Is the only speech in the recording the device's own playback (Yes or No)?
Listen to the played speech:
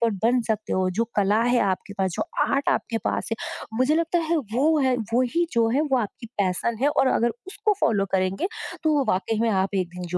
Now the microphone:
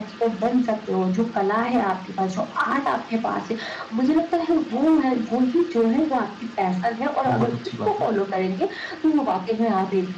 No